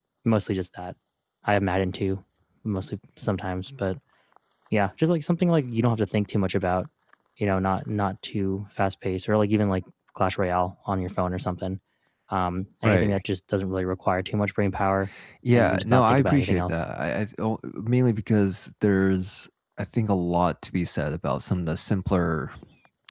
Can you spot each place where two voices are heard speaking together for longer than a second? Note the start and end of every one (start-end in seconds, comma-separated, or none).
15.5-16.8